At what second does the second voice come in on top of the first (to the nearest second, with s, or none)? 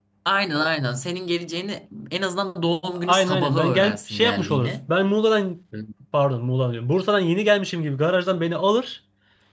3 s